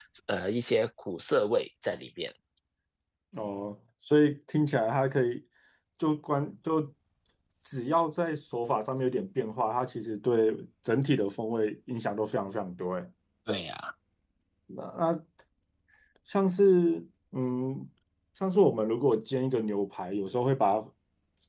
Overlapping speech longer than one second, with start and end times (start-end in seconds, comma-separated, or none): none